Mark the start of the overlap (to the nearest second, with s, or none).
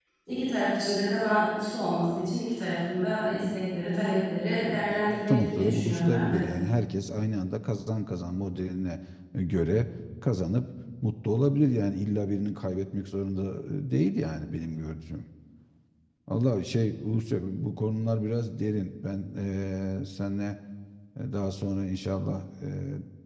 5 s